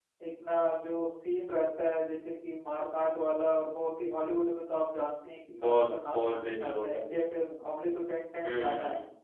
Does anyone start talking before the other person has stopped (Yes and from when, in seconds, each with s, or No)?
Yes, from 5.6 s